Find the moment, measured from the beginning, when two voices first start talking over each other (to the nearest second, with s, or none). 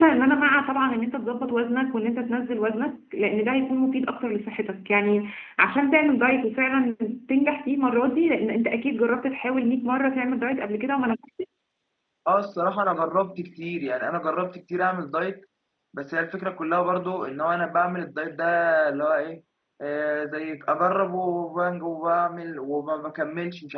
none